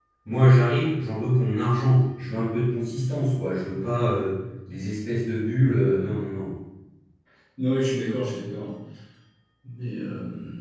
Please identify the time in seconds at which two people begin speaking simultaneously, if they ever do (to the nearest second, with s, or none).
none